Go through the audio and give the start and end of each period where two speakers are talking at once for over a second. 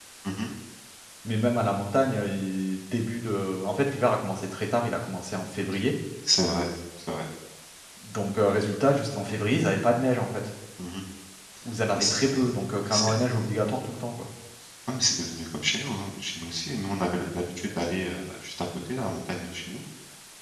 none

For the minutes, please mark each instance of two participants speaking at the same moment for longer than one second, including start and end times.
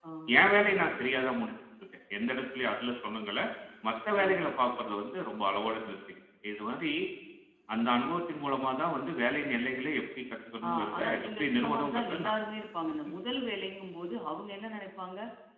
10.7-12.3

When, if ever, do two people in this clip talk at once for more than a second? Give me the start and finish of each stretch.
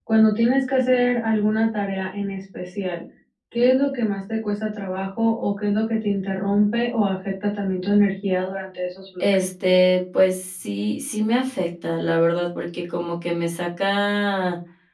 none

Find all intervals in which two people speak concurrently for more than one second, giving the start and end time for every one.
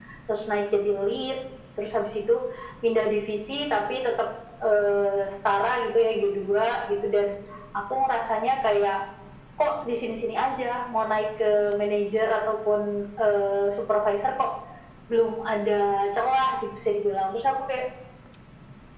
none

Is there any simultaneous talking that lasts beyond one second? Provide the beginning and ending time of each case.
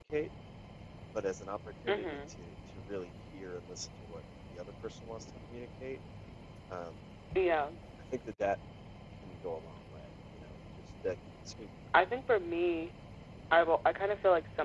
none

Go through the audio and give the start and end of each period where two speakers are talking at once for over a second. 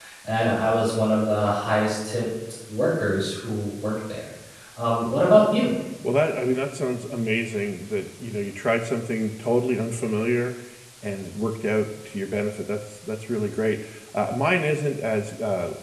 none

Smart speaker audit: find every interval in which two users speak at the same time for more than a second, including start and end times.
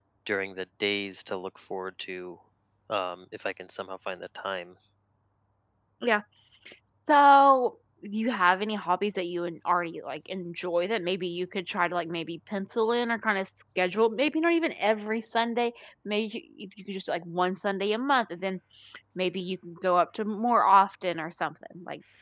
none

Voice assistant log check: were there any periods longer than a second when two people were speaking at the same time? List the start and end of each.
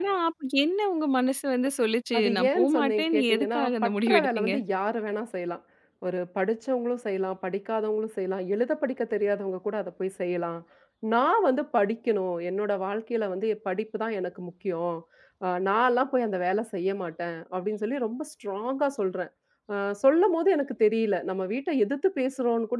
2.2-4.5

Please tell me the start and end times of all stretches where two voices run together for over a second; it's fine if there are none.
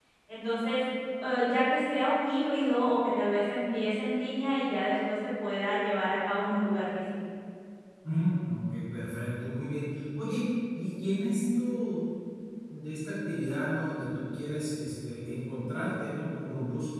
none

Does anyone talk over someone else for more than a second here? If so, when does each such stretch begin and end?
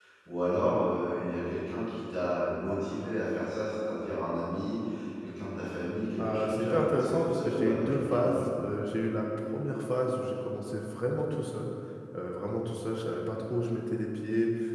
6.2-8.6

